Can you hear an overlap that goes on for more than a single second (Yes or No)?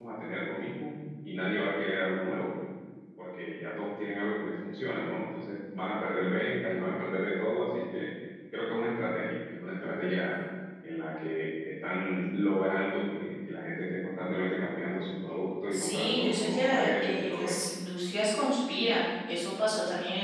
Yes